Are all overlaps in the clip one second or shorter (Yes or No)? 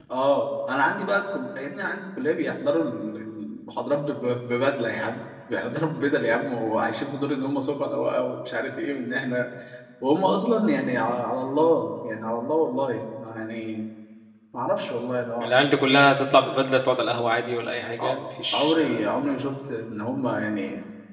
Yes